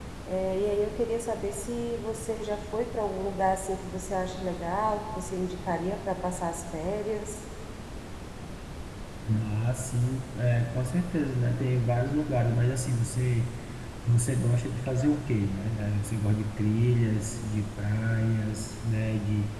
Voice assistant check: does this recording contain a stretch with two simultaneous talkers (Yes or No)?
No